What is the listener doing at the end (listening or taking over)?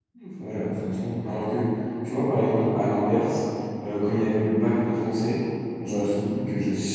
listening